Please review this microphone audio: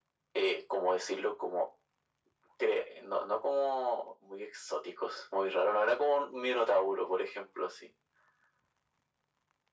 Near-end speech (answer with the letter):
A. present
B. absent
B